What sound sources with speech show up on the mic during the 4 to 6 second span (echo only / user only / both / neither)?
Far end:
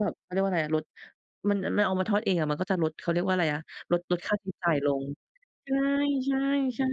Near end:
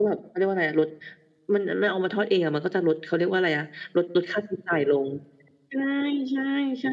echo only